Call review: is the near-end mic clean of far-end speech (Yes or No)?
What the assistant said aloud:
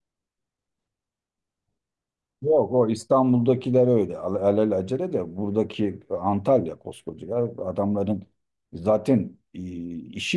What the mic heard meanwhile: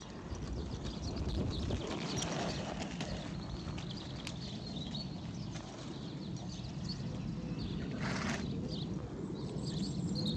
Yes